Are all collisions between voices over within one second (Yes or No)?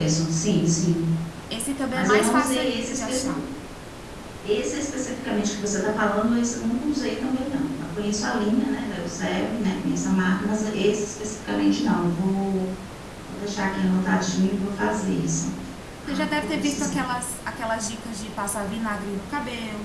No